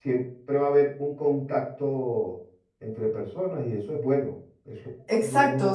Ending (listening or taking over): taking over